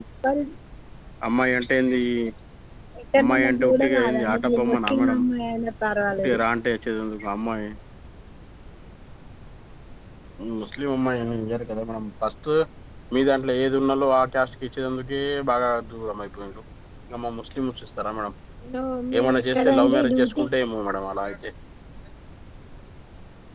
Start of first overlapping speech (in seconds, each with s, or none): 3.2 s